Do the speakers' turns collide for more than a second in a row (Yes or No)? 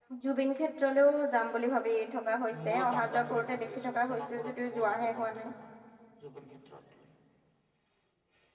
Yes